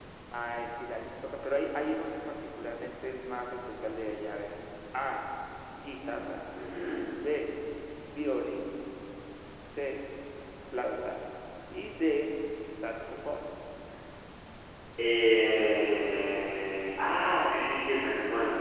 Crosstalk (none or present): none